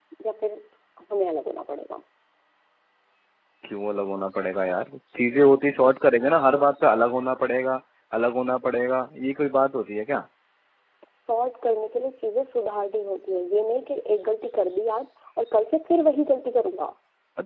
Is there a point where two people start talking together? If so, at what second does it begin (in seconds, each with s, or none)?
none